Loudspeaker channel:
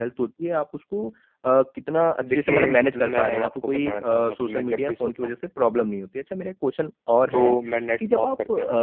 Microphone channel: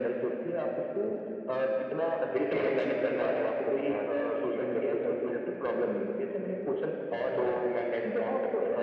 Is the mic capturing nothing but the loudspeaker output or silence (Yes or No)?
Yes